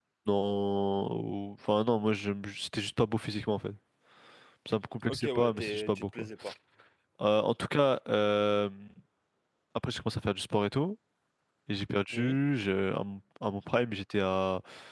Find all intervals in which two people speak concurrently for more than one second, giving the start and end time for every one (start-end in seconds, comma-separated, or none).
5.1-6.3